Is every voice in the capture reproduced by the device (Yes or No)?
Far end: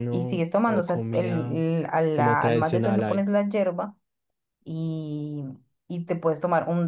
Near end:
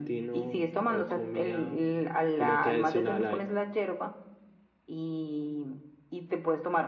Yes